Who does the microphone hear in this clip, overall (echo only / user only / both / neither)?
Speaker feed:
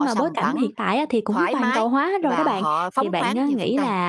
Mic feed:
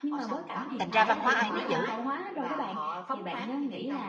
both